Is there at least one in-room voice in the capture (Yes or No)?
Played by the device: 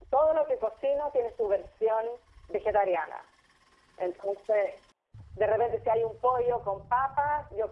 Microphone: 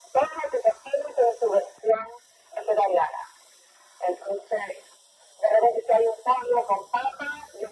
No